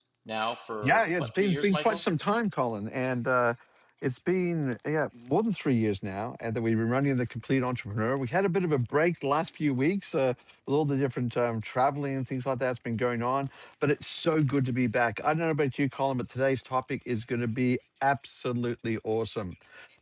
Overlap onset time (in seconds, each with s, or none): 0.8 s